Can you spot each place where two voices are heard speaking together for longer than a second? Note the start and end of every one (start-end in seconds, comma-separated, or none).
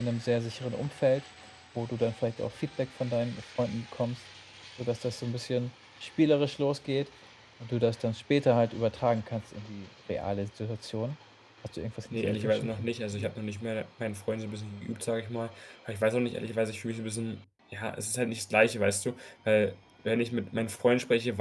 12.1-13.3